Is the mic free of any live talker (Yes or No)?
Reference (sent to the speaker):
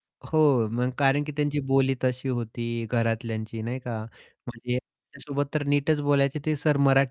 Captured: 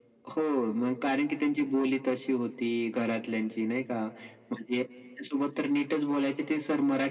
Yes